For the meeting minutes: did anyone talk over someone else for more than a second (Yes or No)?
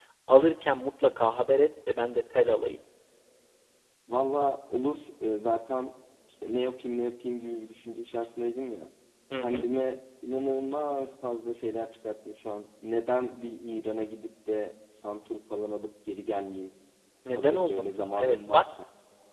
Yes